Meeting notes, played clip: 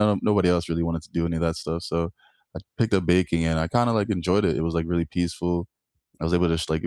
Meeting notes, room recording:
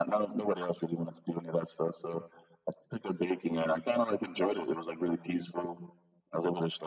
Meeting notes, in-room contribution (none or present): none